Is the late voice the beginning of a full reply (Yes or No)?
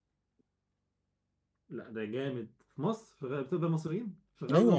Yes